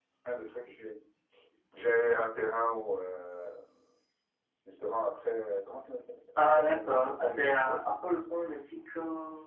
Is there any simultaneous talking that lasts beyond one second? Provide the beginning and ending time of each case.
6.5-7.8

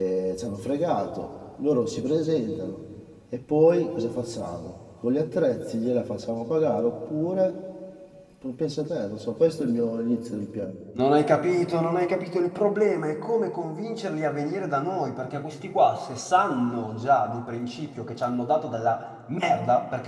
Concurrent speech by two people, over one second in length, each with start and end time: none

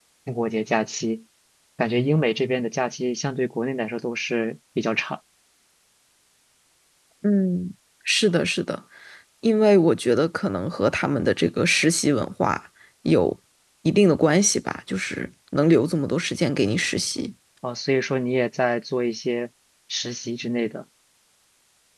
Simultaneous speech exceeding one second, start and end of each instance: none

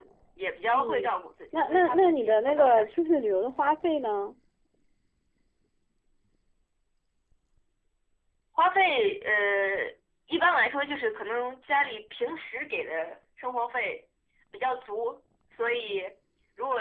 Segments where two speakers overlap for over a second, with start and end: 1.5-3.0

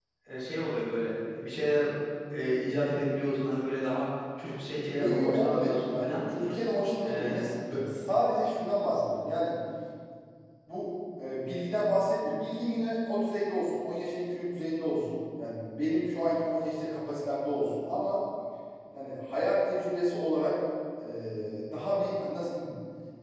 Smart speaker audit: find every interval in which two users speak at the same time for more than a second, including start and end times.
5.0-6.2

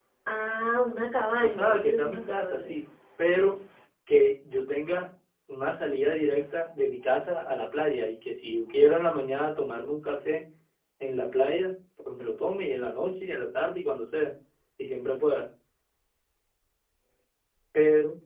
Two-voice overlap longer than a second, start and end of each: 1.4-2.7

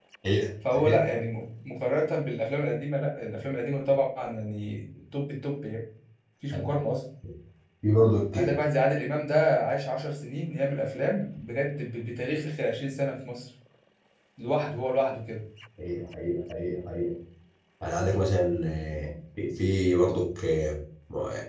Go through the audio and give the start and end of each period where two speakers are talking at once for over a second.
none

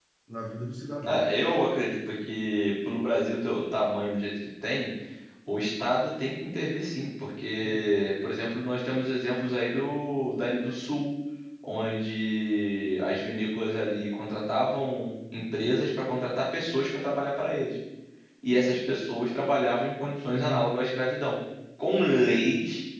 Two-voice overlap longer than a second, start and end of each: none

